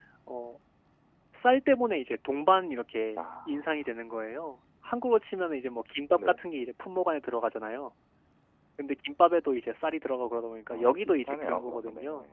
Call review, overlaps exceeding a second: present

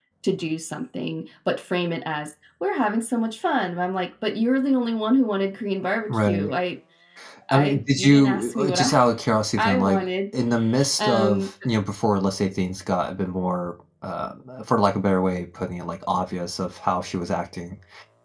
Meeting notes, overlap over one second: present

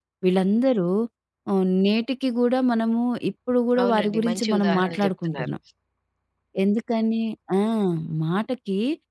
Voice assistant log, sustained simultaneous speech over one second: present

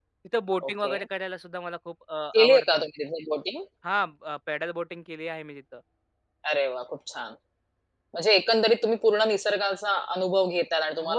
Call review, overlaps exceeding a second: none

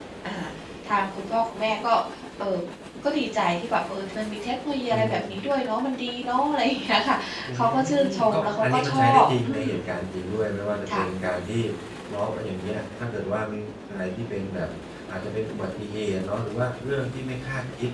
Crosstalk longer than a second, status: present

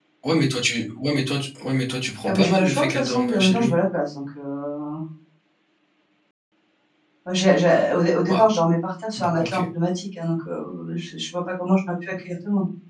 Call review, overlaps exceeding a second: present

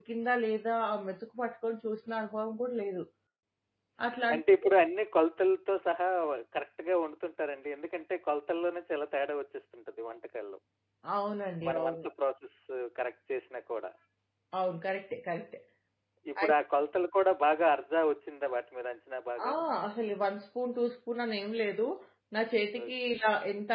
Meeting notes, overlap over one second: none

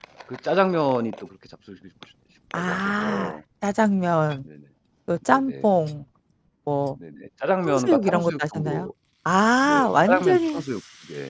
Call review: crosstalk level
present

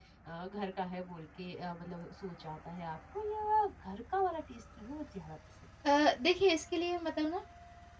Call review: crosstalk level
none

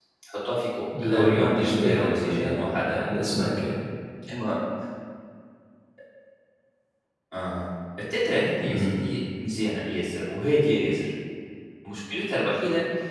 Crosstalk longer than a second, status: present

